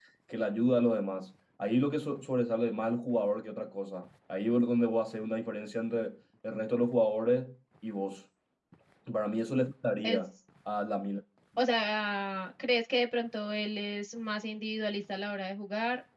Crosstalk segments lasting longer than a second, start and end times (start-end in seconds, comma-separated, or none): none